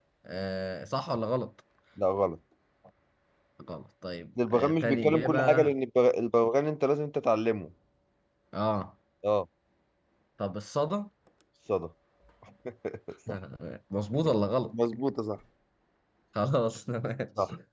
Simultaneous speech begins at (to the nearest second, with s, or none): 4 s